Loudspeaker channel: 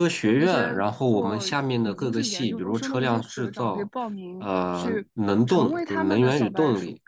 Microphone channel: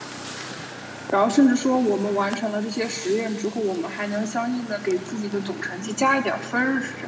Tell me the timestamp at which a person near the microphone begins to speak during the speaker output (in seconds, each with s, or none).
1.1 s